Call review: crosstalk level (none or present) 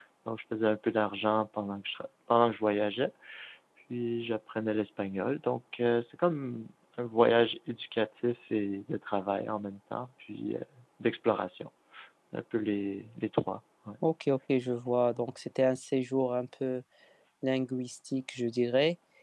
none